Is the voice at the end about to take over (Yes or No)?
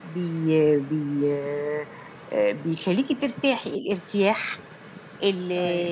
No